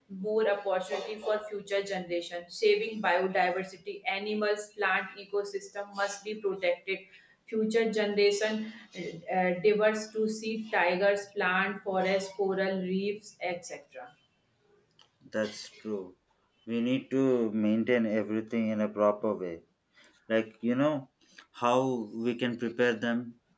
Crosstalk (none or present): none